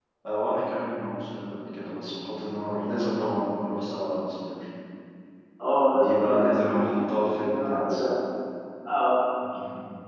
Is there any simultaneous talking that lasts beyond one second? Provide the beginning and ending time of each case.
6.0-8.0

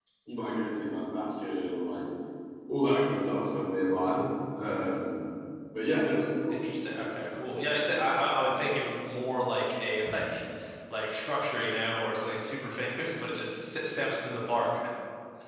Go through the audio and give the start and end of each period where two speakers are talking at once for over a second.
none

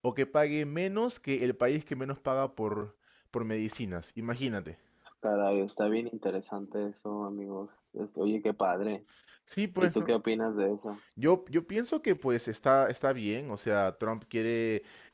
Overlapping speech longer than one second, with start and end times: none

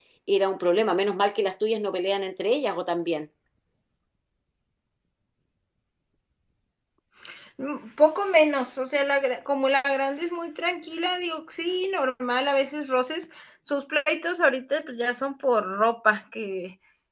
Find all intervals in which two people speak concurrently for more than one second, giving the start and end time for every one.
none

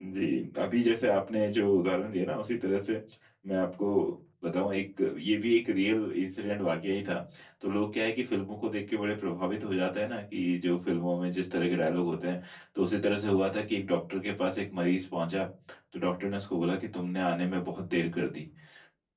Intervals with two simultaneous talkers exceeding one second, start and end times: none

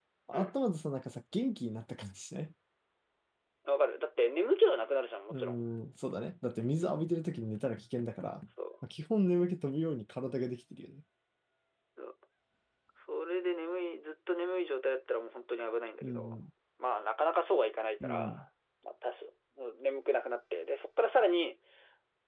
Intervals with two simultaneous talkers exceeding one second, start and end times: none

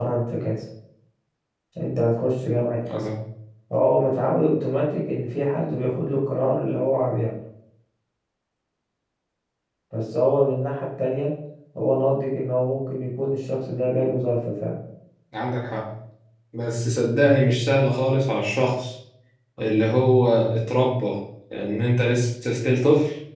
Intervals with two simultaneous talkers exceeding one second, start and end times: none

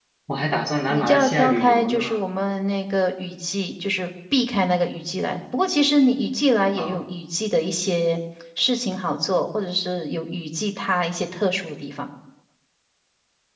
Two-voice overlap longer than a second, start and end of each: 0.9-2.2

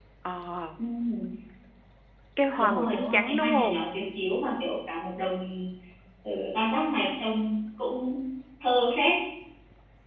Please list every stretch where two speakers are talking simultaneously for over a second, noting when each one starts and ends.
2.5-3.8

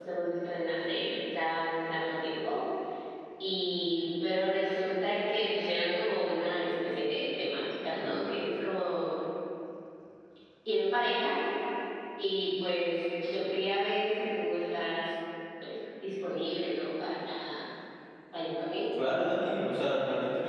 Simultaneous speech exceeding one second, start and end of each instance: none

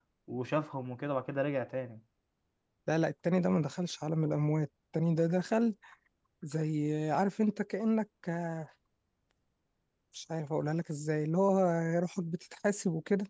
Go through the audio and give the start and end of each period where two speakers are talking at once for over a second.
none

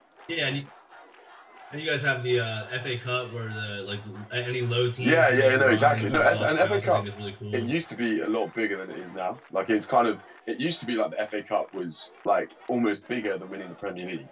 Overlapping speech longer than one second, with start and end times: 5.0-7.0

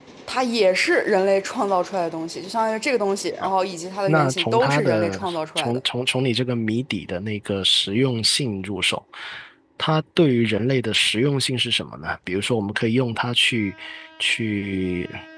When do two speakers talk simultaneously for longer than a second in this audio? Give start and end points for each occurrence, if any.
4.1-5.8

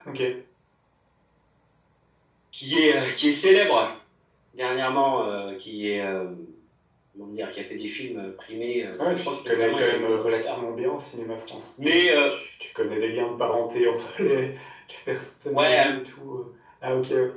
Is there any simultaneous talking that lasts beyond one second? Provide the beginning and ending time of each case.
9.0-10.6

